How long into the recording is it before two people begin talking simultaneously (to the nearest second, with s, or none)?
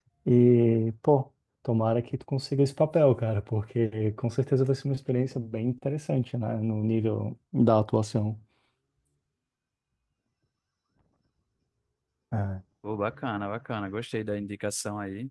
none